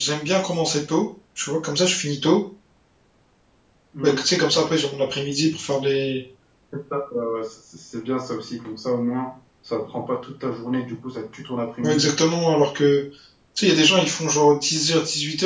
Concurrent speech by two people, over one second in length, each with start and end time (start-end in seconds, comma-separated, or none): none